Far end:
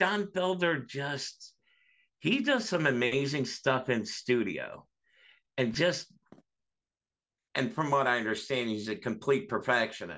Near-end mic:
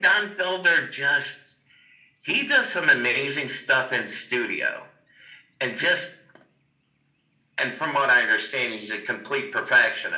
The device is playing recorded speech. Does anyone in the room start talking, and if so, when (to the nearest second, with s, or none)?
none